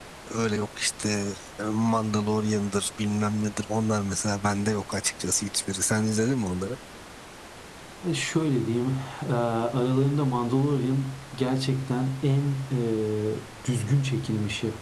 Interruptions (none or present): none